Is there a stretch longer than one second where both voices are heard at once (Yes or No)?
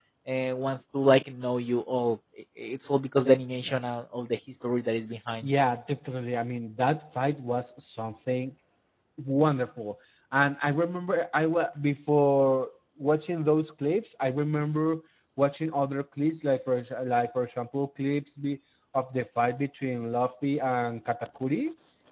No